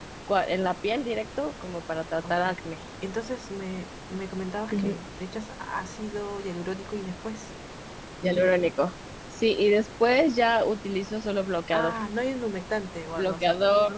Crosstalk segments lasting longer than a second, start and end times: none

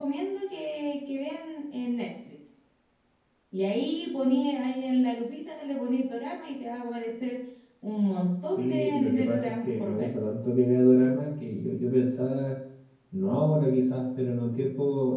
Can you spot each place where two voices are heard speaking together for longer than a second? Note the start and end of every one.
8.4-10.1

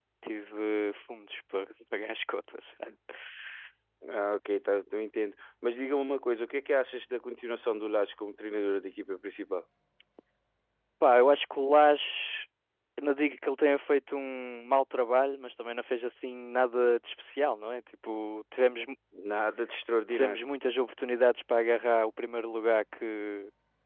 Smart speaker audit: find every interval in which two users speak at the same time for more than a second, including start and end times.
none

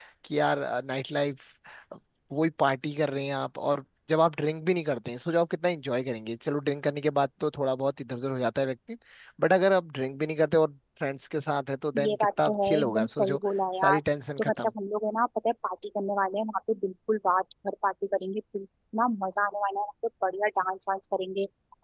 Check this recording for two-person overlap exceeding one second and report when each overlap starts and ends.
12.0-13.4

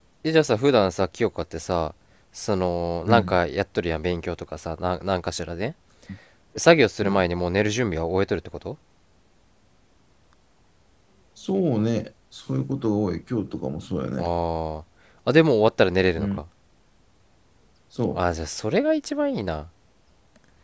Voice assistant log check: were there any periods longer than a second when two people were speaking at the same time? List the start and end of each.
none

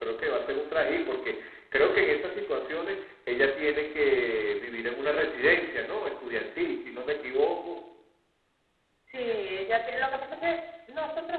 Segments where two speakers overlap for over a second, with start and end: none

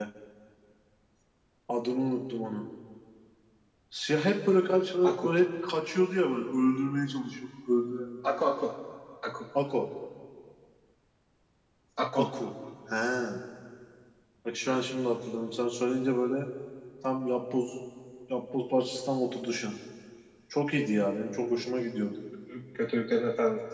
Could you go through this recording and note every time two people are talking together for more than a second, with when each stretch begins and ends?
none

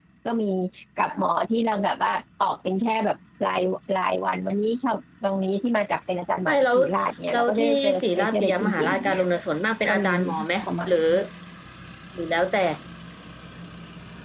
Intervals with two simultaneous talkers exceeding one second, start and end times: 7.3-9.2

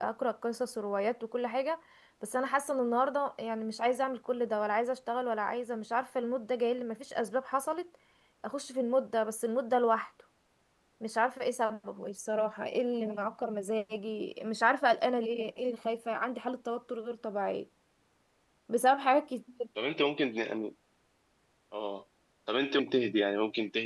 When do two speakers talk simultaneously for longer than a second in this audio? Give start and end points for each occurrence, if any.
none

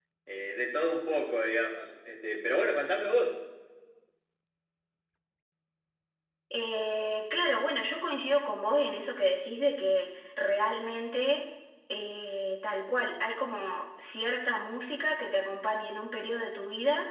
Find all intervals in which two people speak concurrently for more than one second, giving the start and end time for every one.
none

